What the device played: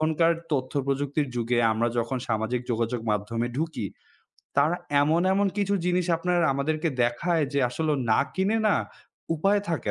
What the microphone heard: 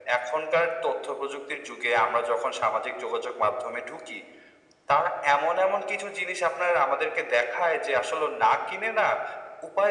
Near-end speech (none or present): none